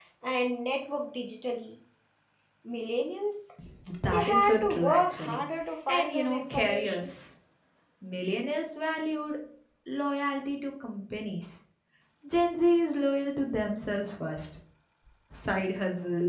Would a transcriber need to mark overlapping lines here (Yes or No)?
Yes